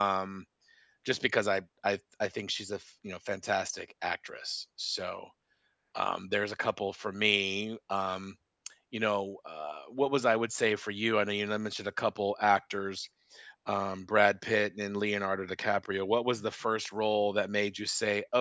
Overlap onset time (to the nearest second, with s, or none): none